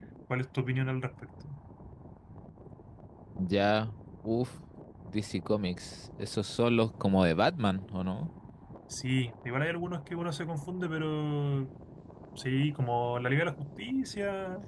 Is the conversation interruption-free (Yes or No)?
Yes